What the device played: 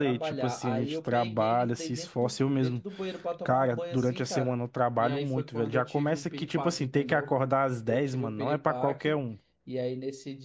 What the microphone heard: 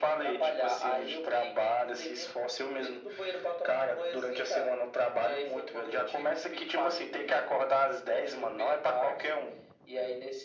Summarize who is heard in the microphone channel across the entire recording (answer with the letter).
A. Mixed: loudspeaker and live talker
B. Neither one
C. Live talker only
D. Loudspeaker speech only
D